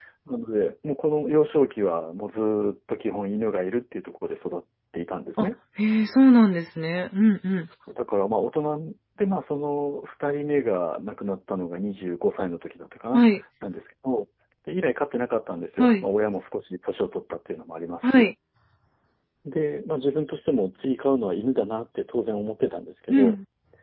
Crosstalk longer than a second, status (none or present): none